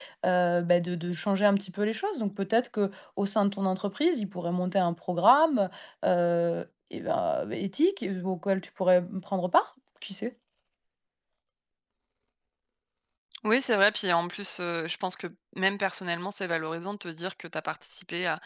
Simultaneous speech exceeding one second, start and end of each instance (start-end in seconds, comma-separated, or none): none